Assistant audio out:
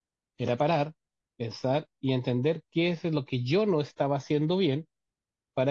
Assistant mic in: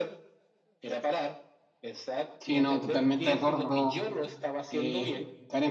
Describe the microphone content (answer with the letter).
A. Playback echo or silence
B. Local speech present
B